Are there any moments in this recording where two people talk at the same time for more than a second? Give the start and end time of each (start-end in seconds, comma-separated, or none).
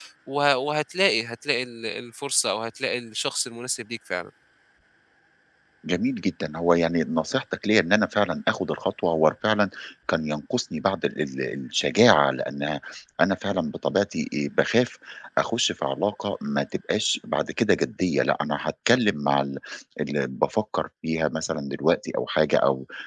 none